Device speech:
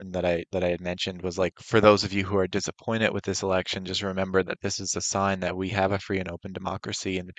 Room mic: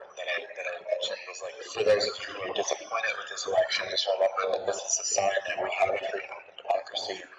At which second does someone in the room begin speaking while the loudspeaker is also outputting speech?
none

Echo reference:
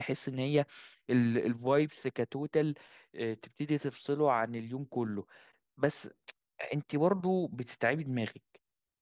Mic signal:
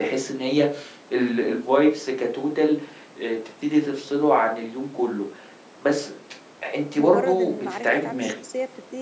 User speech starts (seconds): 7.0 s

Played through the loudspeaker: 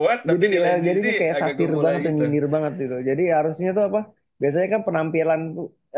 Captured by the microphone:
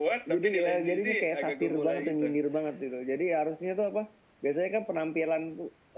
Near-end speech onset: none

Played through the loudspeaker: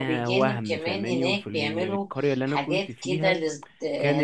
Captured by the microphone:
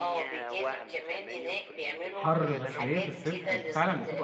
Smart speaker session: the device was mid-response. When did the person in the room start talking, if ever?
2.1 s

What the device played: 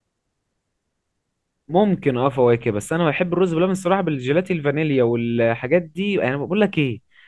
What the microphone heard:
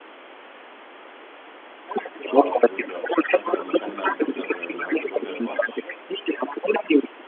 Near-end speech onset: 2.3 s

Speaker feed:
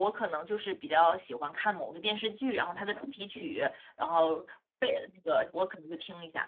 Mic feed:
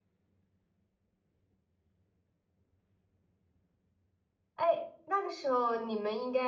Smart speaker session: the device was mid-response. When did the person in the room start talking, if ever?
4.5 s

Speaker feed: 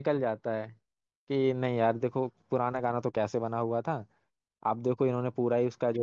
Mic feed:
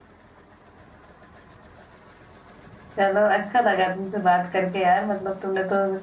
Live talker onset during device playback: 3.0 s

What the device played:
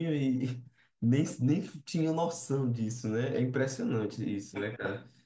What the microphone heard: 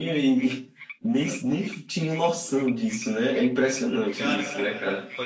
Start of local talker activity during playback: 4.1 s

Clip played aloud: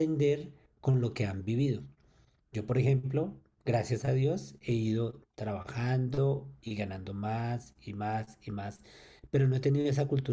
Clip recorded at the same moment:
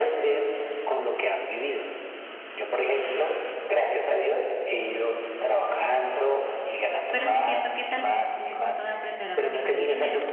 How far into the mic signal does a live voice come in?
7.1 s

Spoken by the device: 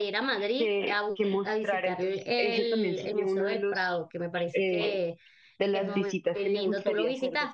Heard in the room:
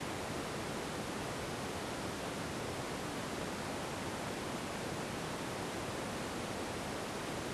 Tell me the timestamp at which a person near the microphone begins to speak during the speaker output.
none

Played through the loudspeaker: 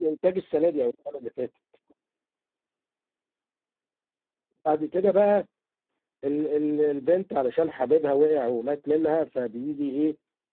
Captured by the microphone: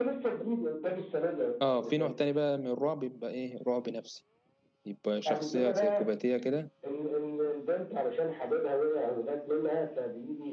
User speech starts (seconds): 1.6 s

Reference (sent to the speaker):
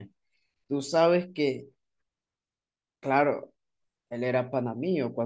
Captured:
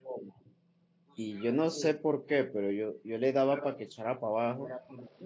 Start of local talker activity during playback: 1.1 s

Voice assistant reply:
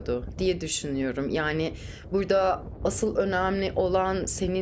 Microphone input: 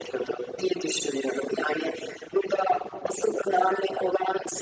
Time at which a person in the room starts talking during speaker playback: none

